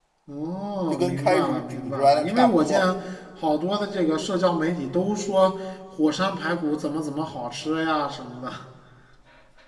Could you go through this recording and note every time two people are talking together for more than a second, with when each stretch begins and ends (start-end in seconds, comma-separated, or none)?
0.9-2.8